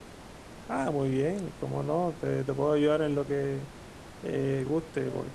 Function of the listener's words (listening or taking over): listening